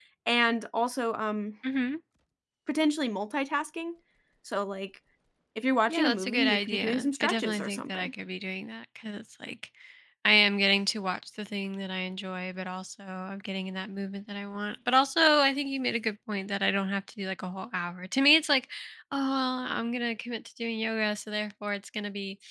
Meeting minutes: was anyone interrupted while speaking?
Yes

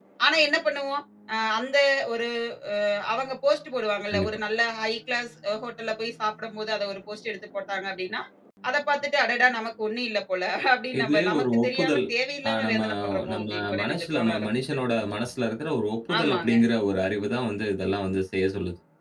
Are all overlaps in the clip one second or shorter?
No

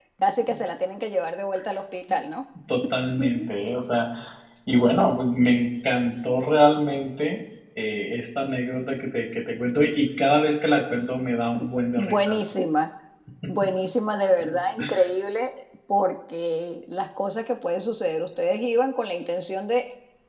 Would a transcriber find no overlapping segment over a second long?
Yes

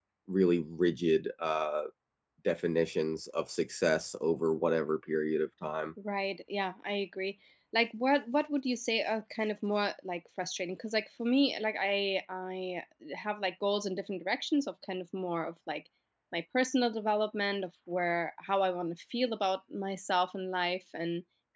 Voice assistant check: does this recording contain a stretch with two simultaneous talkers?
No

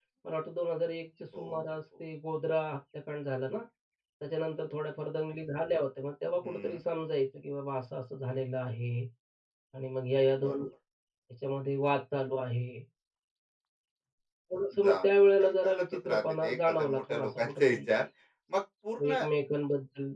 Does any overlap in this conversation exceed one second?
Yes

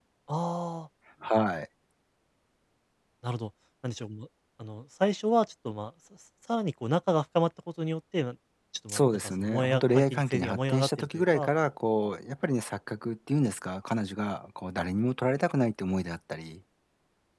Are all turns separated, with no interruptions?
No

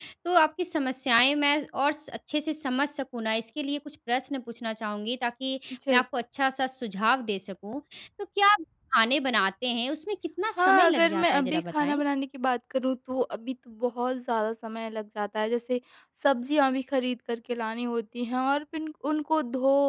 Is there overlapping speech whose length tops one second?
Yes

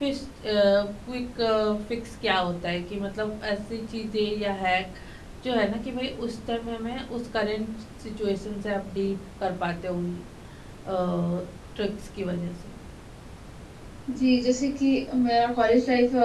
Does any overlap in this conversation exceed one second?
No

